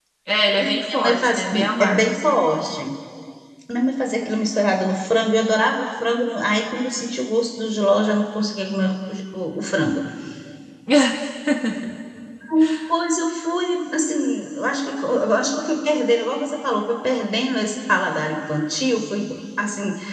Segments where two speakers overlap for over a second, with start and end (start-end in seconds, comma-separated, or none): 0.6-2.0